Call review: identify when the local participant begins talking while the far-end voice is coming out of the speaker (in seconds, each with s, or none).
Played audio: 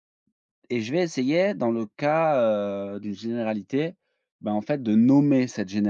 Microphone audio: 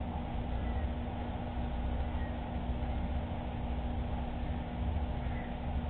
none